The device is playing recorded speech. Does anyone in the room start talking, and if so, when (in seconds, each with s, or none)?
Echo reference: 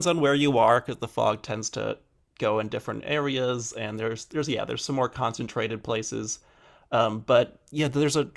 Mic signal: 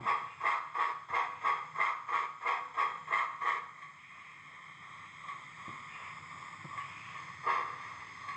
none